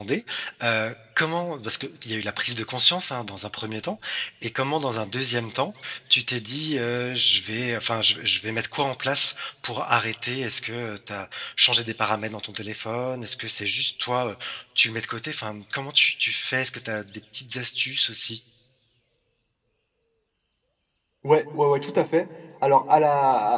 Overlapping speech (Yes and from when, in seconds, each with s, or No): No